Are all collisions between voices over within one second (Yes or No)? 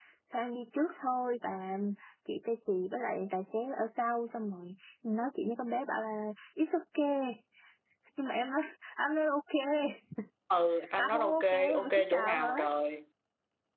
No